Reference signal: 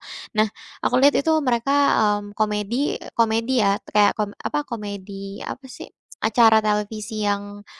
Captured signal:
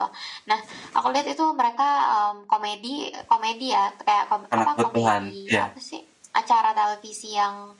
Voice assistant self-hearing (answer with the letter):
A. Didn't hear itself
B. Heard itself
B